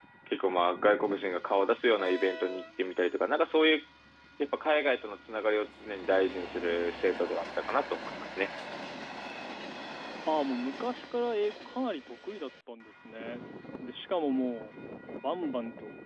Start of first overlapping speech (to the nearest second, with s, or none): none